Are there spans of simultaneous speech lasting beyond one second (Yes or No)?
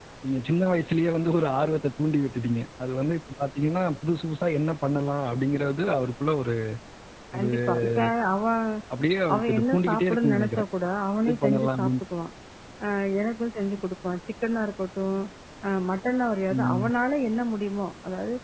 Yes